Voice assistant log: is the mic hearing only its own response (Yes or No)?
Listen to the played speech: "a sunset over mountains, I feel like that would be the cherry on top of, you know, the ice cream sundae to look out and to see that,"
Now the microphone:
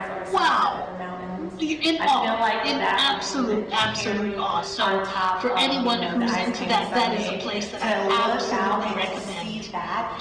No